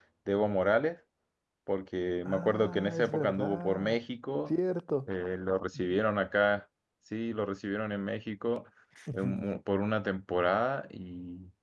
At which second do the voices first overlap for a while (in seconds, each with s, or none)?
2.2 s